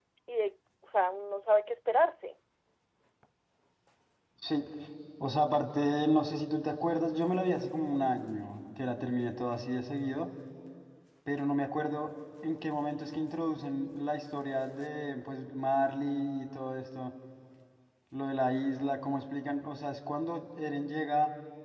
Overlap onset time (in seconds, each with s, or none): none